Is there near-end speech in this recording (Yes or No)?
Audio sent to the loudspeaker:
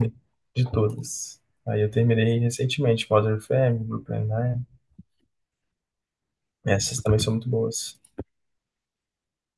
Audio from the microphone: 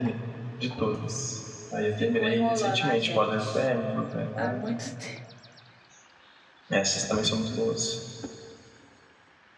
Yes